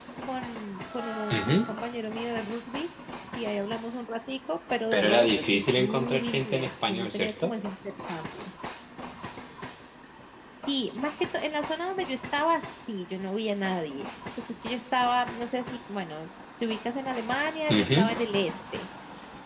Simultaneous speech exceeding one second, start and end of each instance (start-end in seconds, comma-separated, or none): 4.9-7.5